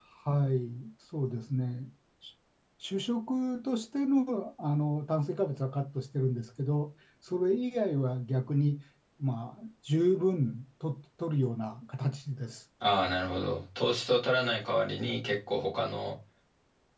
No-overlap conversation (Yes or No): Yes